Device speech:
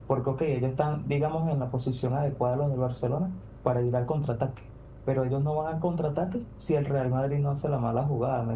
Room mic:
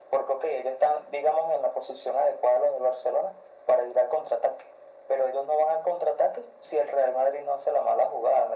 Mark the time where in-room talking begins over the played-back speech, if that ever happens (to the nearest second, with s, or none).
none